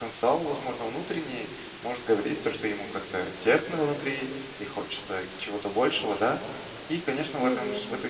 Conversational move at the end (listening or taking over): listening